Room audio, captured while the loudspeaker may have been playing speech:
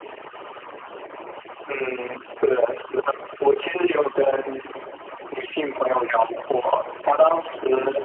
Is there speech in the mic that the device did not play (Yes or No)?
No